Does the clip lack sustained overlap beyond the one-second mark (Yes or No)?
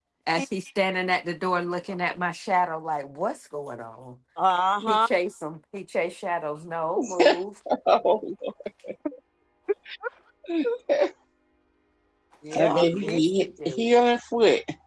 No